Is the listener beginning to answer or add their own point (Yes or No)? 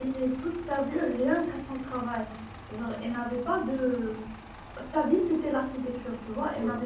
No